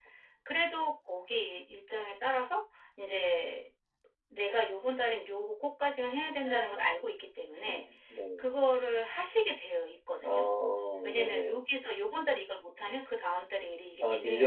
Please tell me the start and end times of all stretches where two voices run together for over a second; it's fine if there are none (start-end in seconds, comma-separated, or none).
none